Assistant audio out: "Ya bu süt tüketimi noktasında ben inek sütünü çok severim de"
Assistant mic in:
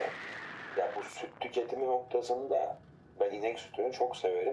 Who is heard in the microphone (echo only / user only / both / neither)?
echo only